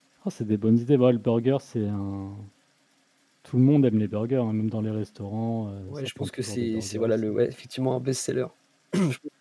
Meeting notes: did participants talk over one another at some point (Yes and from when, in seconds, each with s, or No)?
Yes, from 5.9 s